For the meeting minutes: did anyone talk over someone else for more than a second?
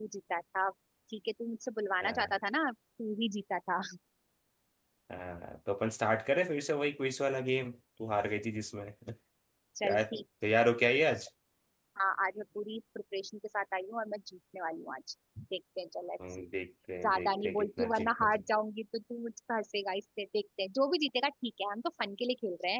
Yes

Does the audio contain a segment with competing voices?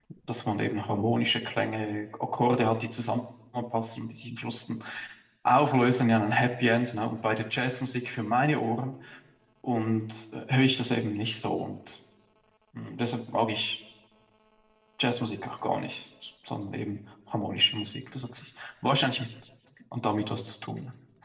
No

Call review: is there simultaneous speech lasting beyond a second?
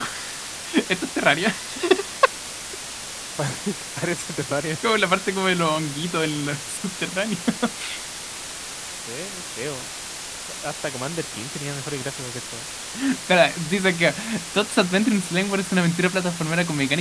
No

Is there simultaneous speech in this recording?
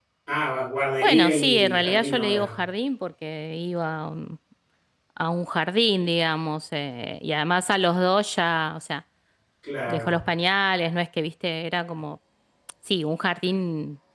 Yes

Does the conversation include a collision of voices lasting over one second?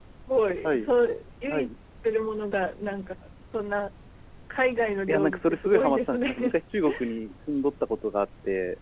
Yes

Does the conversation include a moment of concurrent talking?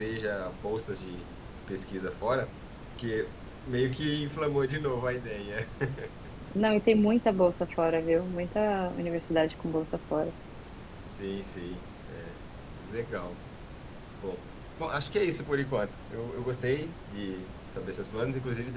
No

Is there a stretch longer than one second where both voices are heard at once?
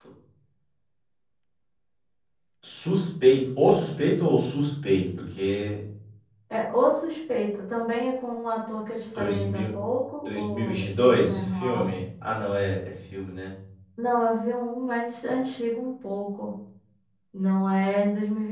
Yes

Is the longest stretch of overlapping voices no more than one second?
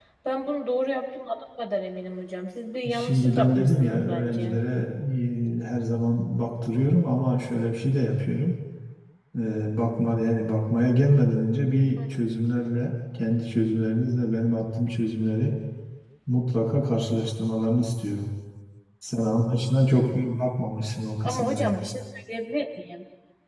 No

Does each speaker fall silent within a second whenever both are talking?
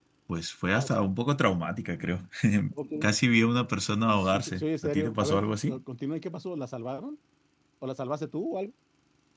No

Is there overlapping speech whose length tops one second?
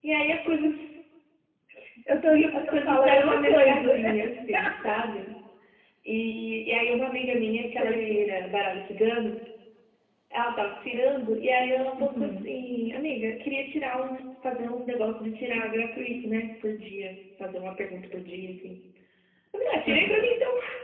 Yes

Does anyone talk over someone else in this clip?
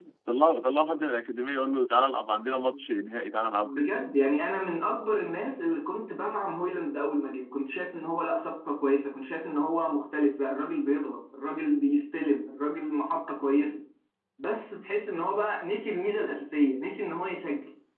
No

